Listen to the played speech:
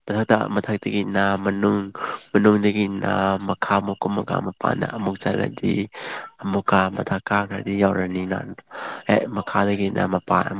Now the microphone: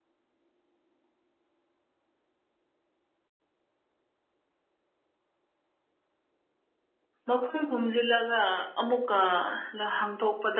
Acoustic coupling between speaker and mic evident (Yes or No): No